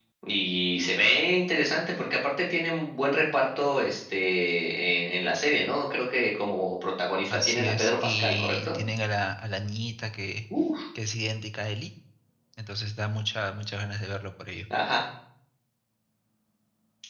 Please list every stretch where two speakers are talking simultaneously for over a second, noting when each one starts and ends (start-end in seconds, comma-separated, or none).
7.3-8.8